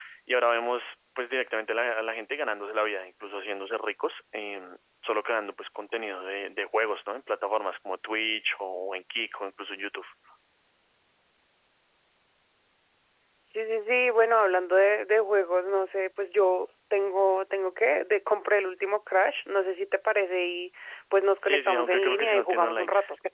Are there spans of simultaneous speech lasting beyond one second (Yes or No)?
Yes